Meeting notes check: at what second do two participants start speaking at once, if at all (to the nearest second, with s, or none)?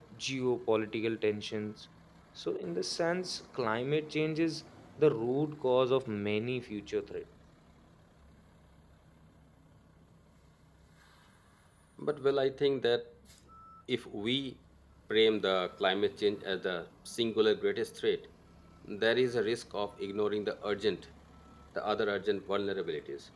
none